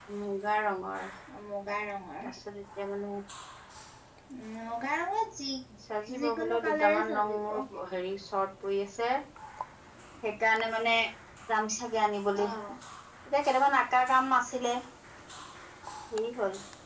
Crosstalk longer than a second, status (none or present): present